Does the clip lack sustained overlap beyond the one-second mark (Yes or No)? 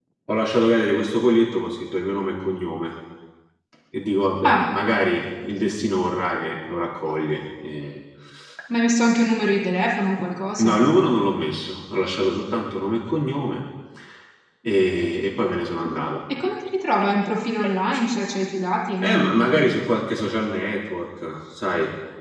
Yes